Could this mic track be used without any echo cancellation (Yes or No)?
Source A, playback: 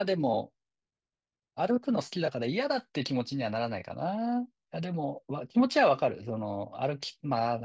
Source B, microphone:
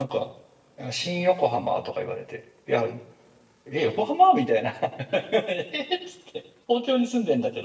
Yes